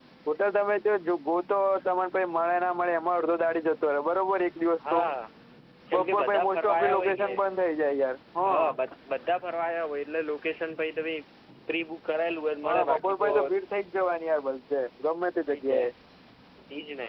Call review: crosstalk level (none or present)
present